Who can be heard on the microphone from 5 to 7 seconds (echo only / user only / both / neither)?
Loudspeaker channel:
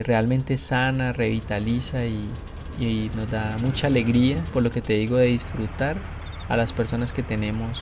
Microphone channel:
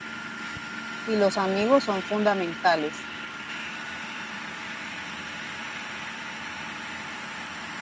neither